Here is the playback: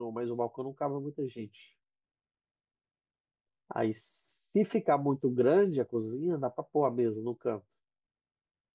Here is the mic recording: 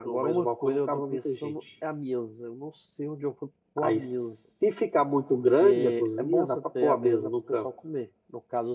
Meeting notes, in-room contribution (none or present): present